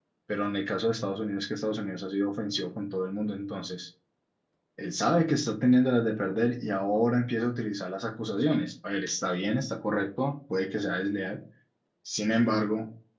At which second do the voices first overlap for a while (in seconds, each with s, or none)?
none